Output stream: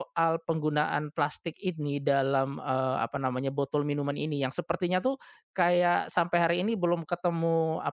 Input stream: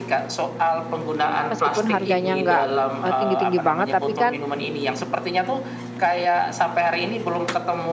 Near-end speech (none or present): present